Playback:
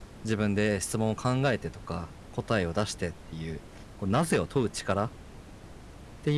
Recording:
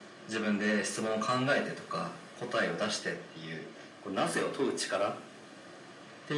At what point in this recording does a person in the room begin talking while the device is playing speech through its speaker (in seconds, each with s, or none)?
none